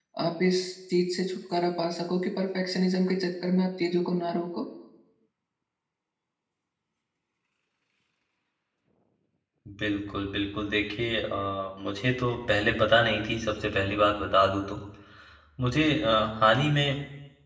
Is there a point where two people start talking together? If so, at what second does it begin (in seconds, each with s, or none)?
none